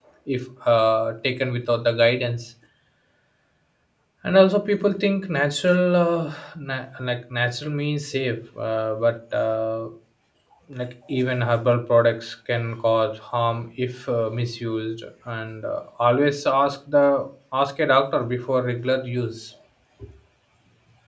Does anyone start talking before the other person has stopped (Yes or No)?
No